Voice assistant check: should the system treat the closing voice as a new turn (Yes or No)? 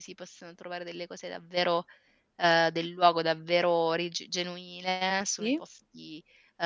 No